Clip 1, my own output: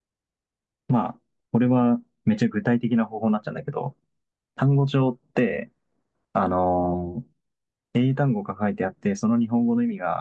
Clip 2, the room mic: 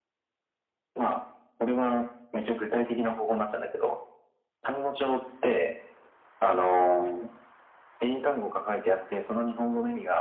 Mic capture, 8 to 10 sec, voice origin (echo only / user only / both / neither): echo only